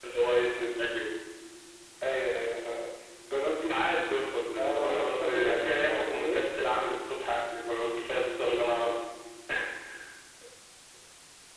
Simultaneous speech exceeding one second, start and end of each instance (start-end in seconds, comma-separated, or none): 4.6-6.4